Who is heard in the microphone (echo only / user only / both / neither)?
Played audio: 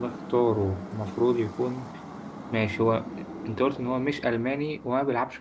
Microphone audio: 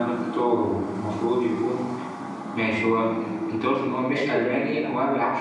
both